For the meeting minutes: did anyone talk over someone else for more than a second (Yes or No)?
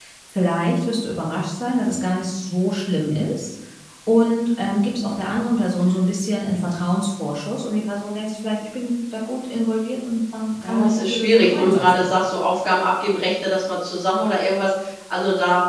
Yes